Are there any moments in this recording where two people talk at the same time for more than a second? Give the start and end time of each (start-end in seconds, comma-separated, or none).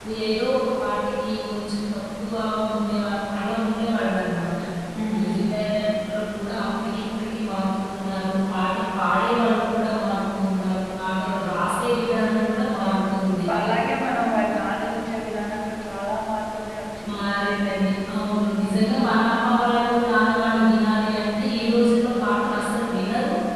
none